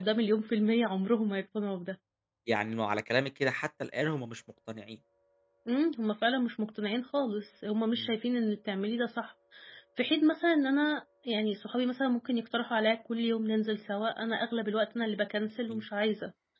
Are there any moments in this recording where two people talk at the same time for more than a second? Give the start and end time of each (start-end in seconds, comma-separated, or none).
none